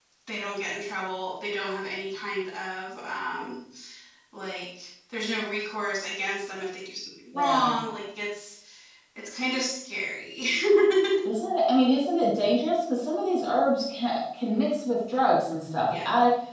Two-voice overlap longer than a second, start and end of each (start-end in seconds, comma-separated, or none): none